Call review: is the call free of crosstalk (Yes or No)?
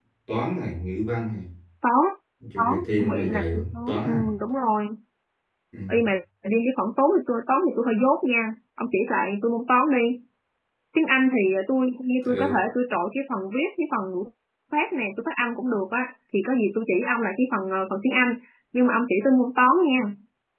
No